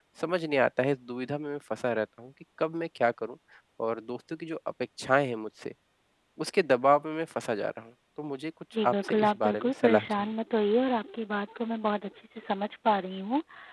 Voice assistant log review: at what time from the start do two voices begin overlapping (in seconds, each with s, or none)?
8.7 s